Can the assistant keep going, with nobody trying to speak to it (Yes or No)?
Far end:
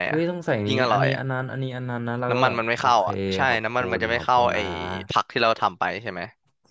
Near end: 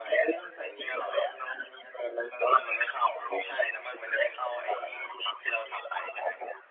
Yes